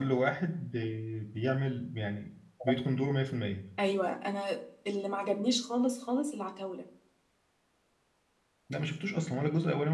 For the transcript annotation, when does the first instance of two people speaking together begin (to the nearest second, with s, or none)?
none